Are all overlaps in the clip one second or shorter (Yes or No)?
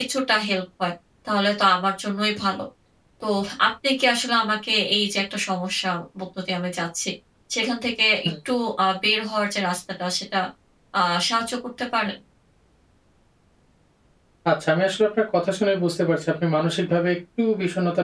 Yes